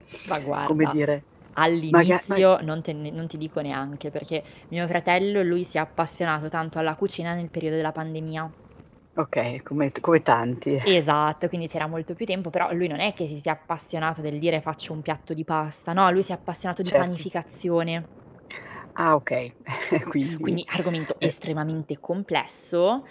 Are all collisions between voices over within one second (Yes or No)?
Yes